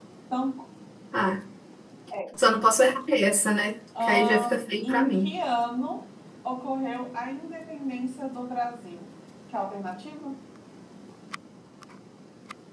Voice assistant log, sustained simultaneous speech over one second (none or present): present